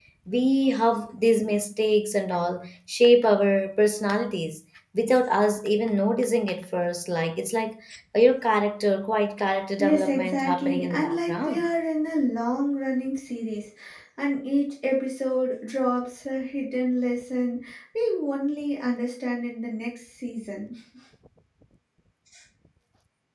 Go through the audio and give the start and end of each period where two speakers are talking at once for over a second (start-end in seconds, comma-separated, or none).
9.8-11.7